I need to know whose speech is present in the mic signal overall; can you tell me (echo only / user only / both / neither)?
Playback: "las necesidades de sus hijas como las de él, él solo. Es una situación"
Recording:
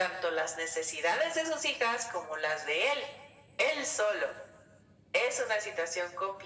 echo only